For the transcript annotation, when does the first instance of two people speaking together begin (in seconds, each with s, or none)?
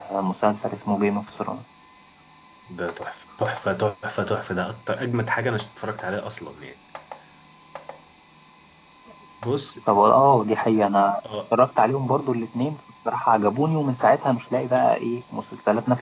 none